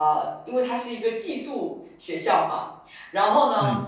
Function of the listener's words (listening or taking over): listening